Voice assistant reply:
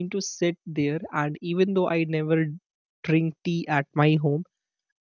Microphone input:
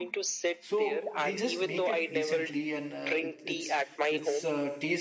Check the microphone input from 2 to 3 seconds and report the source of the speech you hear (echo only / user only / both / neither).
both